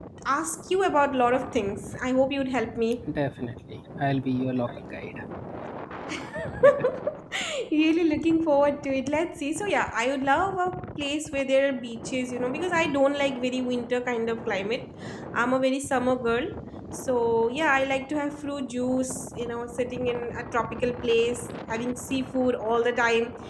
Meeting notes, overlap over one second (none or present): none